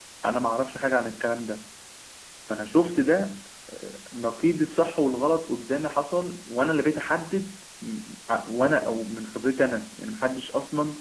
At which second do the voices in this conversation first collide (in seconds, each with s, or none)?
none